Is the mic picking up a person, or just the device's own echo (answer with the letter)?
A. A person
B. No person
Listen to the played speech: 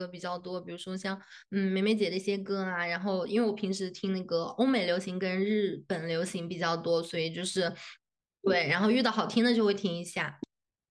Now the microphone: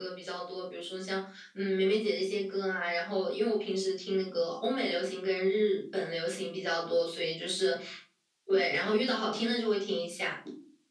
B